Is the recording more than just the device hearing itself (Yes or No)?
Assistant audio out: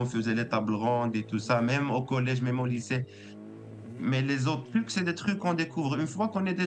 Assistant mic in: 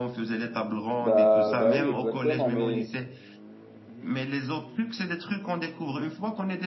Yes